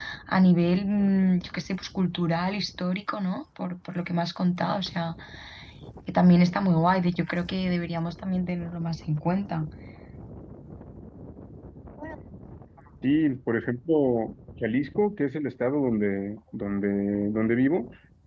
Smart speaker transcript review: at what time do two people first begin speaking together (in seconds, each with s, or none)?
none